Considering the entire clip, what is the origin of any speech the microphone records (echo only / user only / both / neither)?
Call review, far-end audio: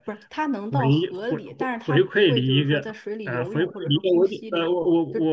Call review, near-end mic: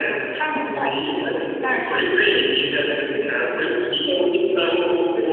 echo only